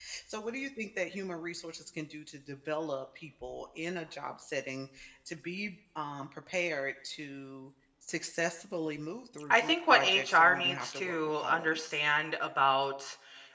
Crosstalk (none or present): present